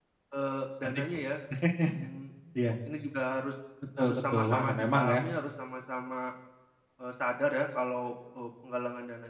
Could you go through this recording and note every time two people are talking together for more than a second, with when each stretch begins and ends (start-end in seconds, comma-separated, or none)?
4.0-5.2